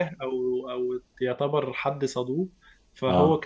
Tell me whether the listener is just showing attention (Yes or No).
Yes